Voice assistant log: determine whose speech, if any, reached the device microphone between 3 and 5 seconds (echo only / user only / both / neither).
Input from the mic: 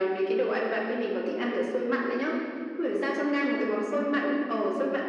echo only